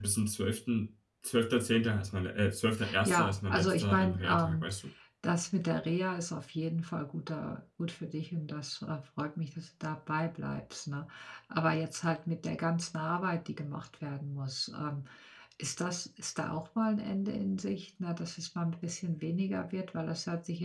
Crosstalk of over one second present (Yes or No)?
Yes